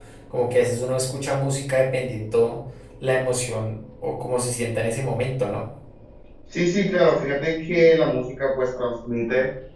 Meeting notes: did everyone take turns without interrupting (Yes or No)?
Yes